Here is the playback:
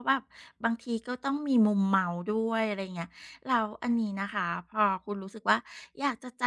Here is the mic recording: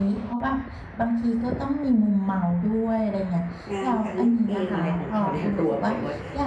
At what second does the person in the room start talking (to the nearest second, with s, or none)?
4 s